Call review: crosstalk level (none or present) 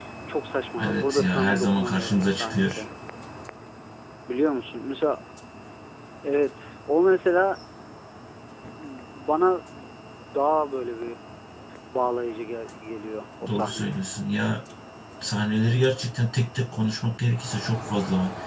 present